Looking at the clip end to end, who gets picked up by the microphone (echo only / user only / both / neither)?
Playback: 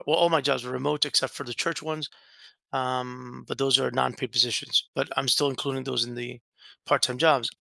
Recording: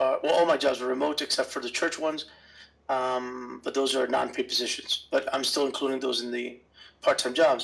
echo only